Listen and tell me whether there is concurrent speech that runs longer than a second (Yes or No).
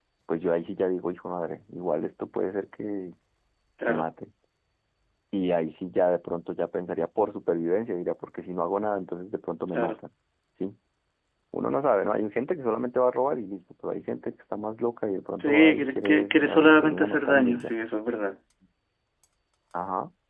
Yes